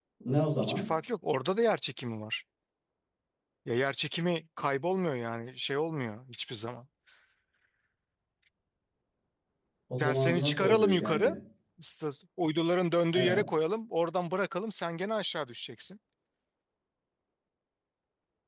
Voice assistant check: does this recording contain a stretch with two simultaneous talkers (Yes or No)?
Yes